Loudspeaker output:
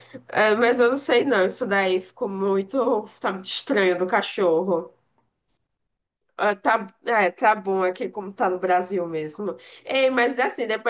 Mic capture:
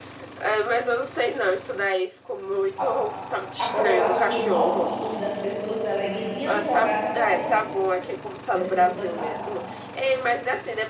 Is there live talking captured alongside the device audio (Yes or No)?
Yes